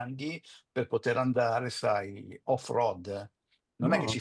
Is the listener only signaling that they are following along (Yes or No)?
Yes